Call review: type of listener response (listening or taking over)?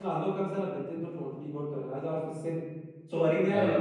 taking over